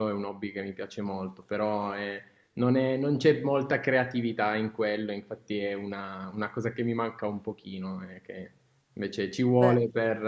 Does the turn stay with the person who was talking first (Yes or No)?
Yes